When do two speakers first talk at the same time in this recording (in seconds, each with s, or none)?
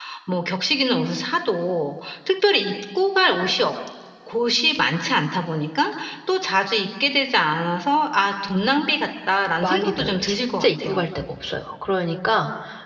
9.6 s